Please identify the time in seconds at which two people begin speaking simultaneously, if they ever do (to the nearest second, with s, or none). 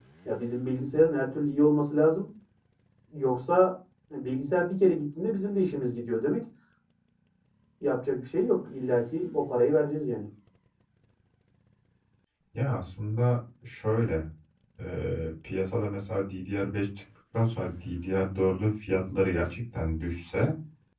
none